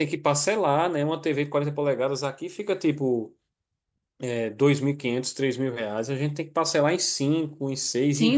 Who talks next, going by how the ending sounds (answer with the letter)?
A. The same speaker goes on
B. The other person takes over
B